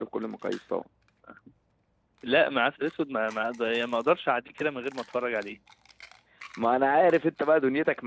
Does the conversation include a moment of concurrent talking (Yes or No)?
No